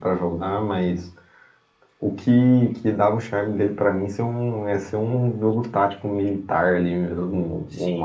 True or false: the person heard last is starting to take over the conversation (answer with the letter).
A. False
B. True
B